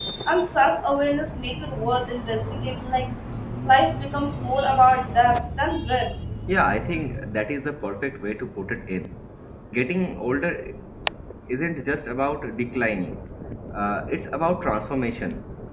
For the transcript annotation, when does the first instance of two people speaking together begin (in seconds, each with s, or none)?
none